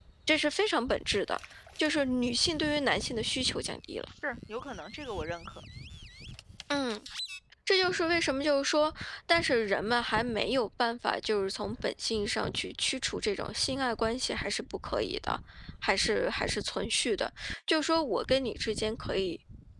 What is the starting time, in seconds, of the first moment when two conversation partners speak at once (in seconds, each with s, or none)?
none